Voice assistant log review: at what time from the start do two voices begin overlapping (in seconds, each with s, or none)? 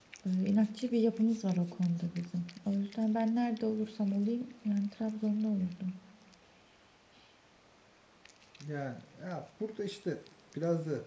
none